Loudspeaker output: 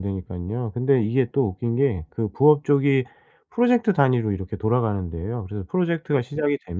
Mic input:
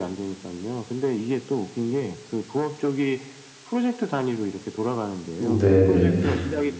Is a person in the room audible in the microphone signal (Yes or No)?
Yes